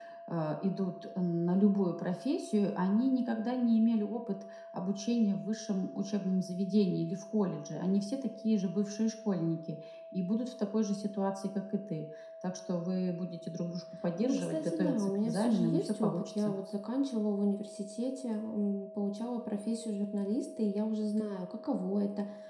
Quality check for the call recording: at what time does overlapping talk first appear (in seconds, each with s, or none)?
14.2 s